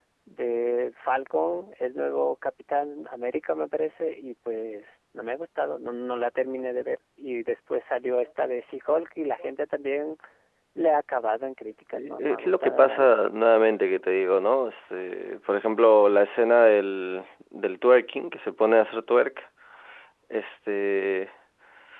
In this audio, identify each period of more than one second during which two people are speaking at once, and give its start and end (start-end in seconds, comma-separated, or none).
11.9-13.1